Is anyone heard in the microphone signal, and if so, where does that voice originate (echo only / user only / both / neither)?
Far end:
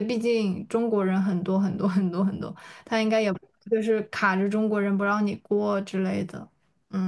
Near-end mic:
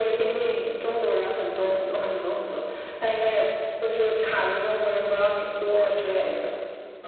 echo only